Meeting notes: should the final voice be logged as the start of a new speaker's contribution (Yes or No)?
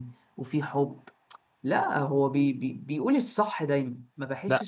Yes